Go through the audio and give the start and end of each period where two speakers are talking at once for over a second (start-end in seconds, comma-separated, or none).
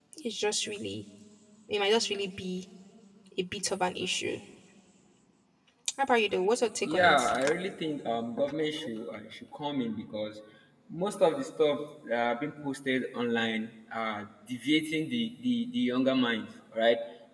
none